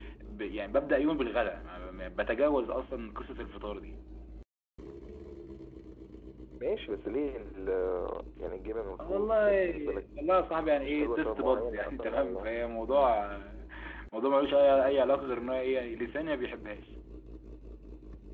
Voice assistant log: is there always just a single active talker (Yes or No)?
No